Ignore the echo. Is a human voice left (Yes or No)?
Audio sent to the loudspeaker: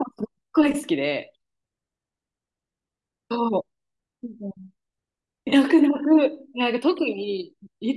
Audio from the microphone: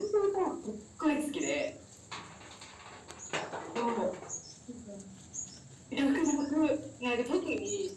No